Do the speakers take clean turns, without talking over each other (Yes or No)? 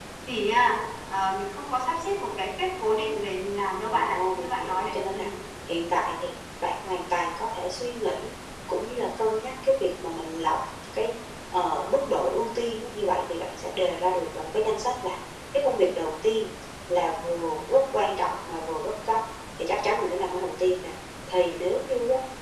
No